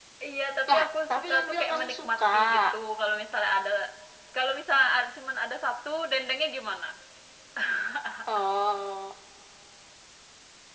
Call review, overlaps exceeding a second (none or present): present